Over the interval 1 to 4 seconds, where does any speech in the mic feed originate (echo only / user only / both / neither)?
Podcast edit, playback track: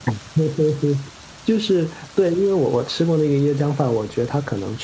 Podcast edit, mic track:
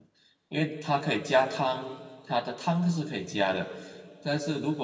user only